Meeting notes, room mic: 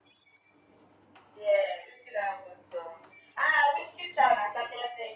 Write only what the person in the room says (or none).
none